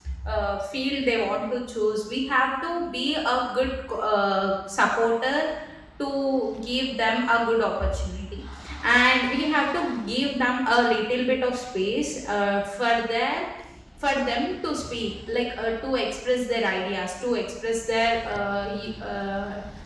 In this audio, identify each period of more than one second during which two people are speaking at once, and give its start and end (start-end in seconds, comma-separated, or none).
none